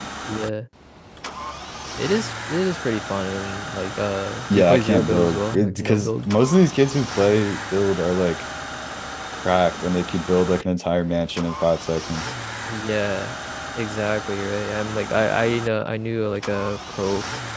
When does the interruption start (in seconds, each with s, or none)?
4.5 s